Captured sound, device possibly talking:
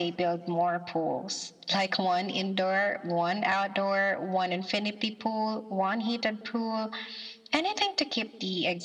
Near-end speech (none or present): none